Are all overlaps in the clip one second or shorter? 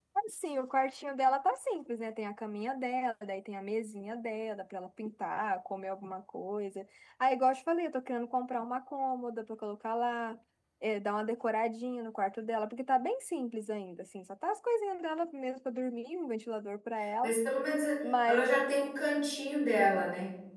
Yes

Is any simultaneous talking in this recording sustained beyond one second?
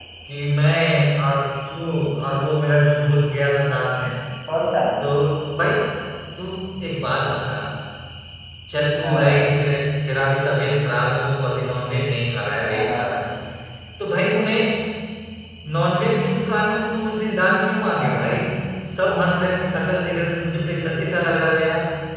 No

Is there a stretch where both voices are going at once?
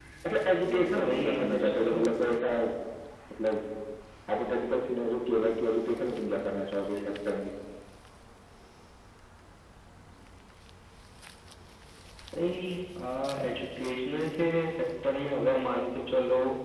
Yes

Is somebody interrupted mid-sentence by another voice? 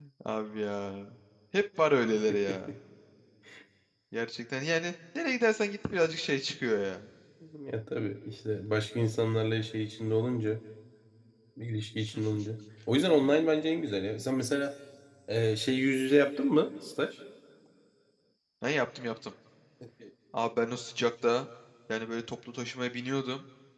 No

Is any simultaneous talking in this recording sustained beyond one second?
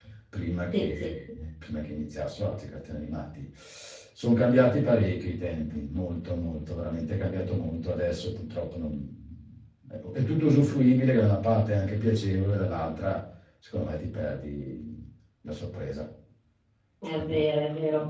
No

